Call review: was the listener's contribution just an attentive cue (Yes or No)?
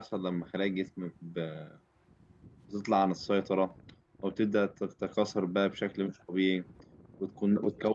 Yes